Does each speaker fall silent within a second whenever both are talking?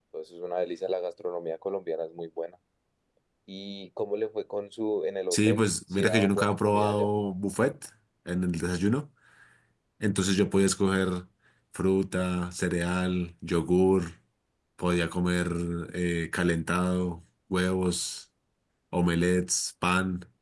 No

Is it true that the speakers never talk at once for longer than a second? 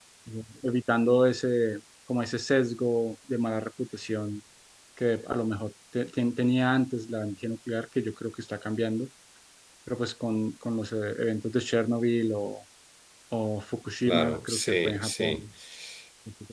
No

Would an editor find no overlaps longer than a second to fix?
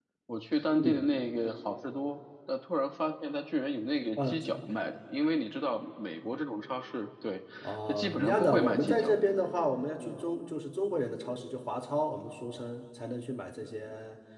No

